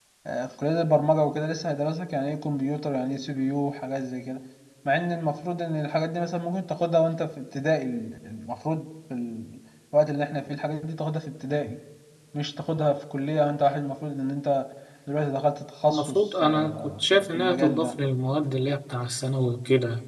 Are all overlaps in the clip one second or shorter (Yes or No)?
No